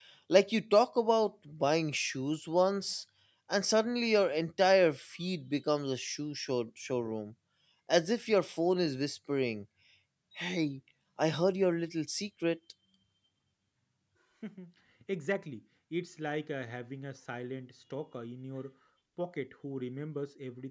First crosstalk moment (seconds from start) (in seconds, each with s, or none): none